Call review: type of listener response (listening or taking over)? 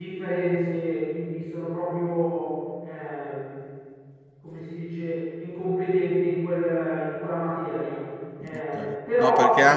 taking over